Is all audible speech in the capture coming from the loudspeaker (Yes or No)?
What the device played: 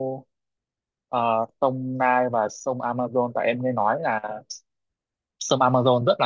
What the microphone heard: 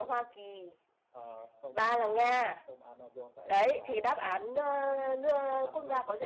No